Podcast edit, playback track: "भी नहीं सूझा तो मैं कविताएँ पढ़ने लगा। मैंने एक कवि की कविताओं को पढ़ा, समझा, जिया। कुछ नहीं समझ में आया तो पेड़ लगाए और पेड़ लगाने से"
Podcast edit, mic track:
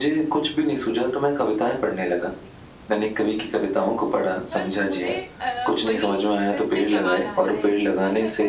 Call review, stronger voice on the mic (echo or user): echo